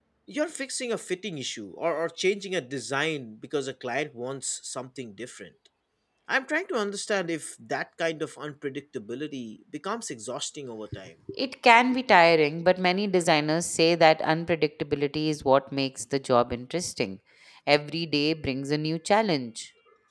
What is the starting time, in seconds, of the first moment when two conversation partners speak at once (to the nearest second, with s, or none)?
none